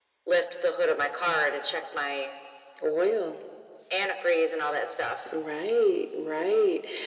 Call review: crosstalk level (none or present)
none